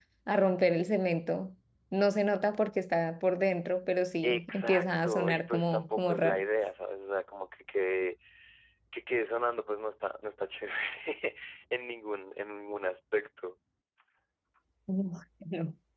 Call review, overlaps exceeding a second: present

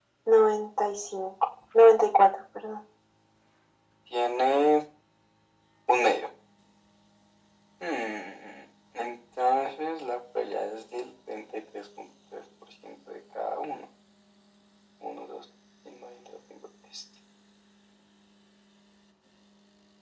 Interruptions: none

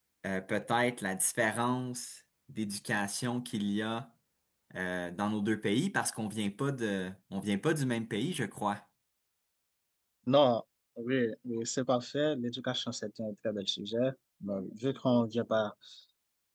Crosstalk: none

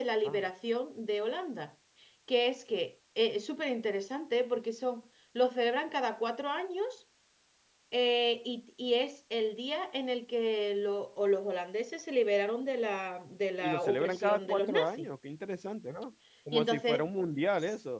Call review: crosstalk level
present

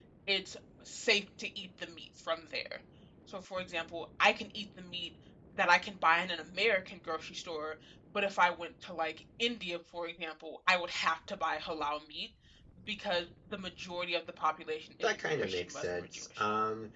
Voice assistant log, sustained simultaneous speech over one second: present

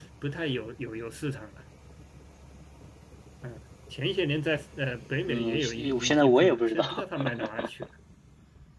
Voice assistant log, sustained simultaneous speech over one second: present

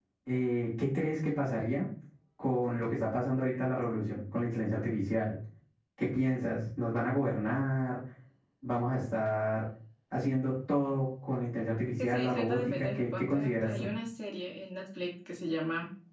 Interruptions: present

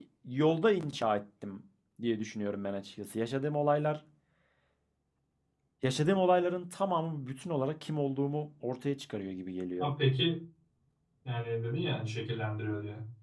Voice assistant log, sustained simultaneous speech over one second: none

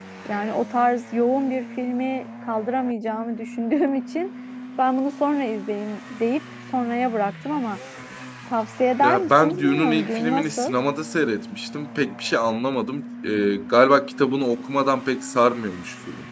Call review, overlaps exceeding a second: present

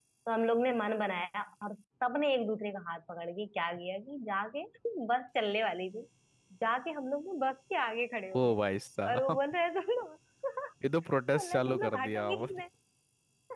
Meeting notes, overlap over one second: present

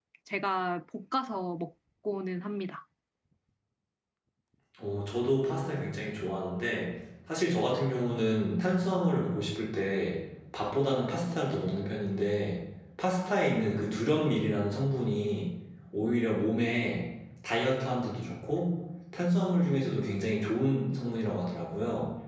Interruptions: none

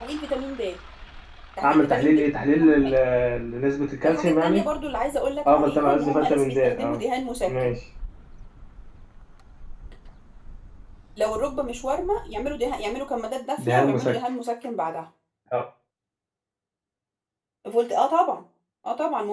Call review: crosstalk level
present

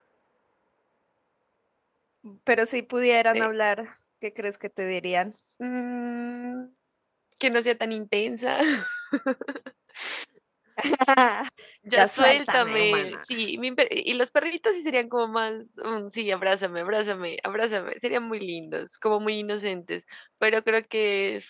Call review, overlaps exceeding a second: present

